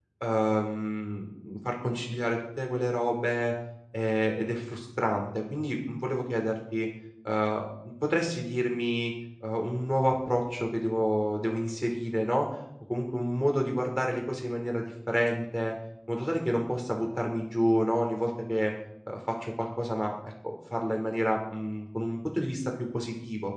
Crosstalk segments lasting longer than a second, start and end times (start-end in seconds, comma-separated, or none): none